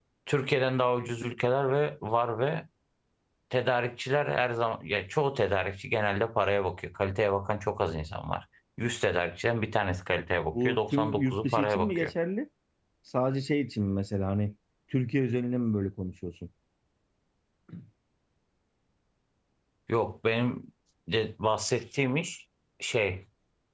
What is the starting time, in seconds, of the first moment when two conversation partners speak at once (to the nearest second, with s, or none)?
11 s